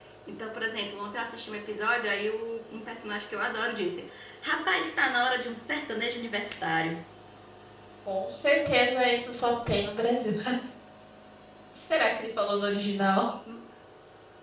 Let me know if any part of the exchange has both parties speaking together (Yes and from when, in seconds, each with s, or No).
No